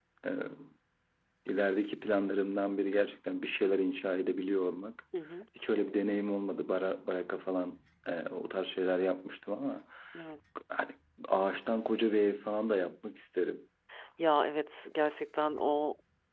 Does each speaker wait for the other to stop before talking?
Yes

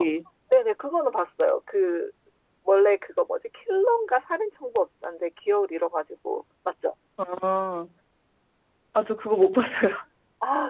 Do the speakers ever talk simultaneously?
No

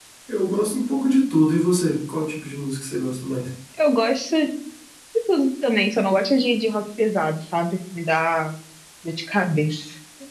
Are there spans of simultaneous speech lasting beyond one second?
No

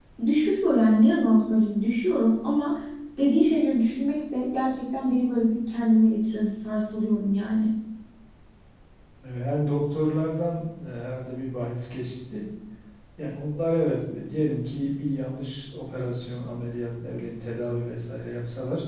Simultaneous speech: No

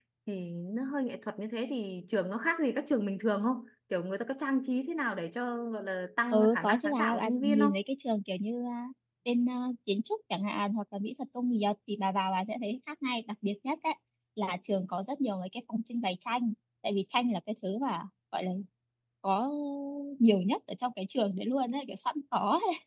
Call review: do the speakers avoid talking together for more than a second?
No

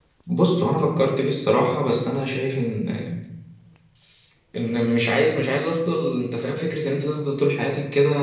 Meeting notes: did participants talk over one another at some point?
No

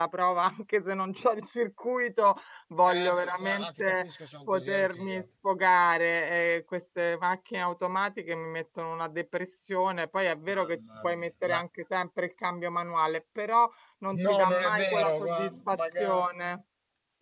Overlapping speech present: Yes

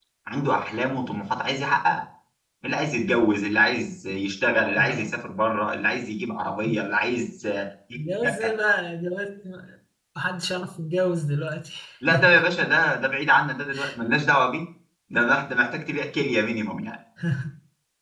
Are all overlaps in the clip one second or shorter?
Yes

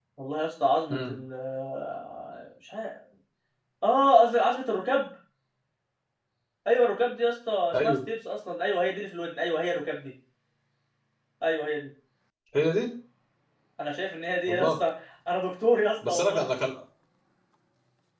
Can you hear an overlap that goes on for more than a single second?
No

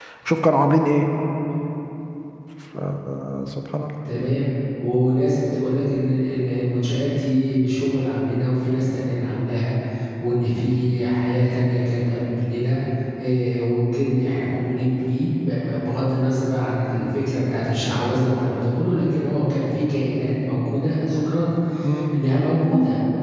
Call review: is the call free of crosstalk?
Yes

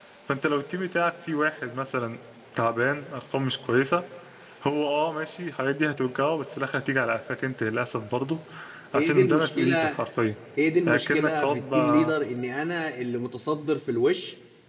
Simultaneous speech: Yes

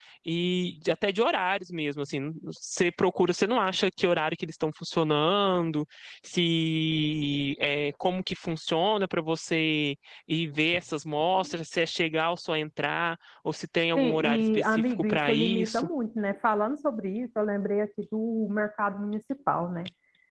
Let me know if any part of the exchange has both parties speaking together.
Yes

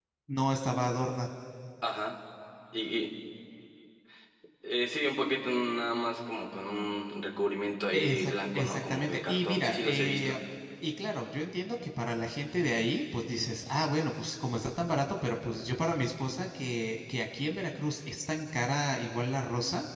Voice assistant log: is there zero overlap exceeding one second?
No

